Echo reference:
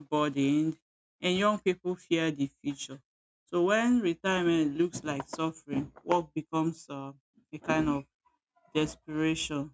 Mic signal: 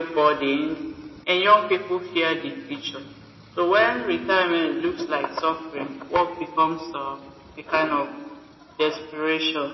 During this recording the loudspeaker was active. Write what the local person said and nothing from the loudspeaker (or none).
none